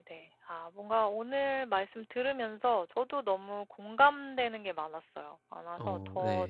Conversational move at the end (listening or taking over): listening